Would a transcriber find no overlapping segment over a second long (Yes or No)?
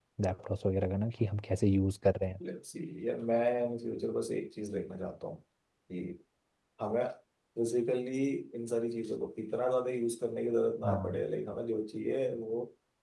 Yes